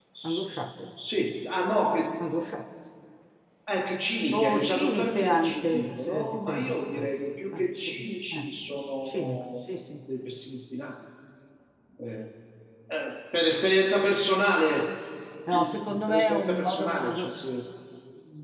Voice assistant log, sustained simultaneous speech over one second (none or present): present